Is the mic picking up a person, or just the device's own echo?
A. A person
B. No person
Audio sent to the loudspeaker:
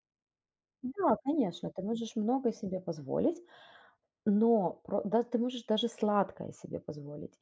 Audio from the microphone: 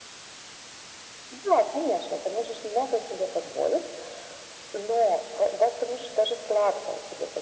B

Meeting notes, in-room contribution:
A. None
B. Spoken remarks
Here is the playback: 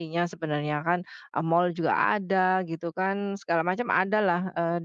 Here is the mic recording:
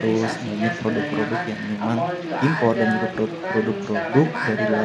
B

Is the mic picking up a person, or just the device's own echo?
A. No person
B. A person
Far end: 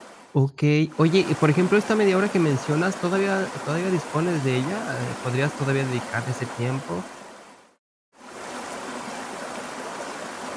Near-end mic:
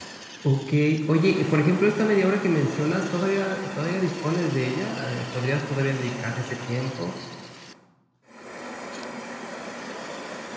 A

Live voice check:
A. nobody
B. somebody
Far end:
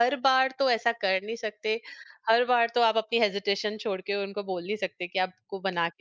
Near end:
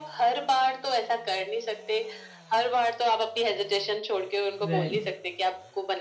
B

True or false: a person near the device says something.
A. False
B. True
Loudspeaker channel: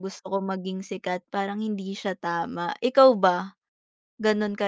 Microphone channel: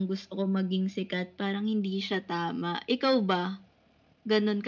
A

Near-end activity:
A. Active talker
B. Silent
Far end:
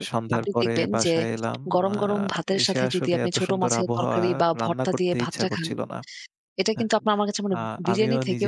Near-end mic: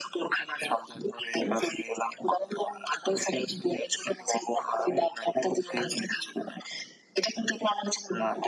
B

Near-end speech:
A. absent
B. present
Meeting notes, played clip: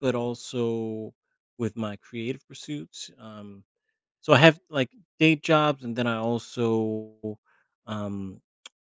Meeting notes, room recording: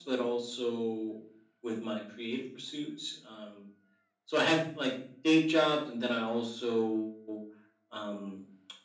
A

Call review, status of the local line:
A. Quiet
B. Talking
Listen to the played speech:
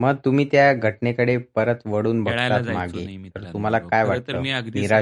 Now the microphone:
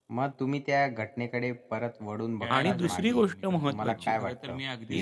B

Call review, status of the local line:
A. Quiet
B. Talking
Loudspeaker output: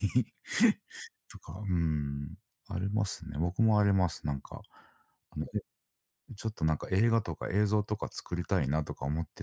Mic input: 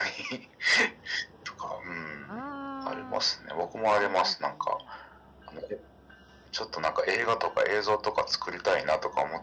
B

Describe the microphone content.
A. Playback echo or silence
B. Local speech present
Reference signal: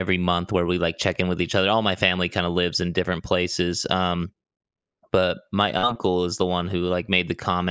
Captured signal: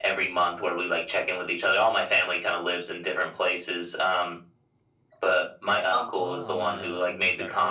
B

